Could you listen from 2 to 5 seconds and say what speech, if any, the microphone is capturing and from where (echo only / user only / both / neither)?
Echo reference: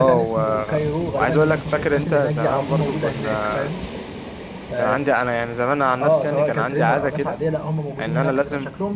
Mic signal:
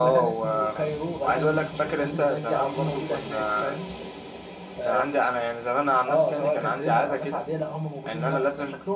echo only